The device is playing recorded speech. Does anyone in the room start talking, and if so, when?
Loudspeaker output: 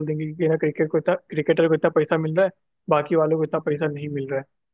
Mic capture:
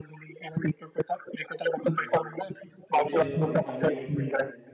2.0 s

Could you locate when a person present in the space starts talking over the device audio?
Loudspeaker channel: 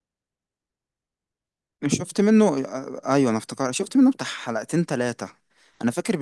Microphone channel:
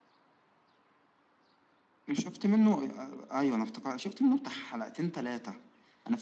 none

